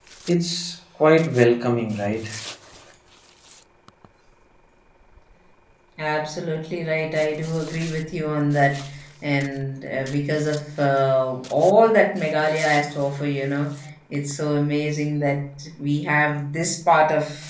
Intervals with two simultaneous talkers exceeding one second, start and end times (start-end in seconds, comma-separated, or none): none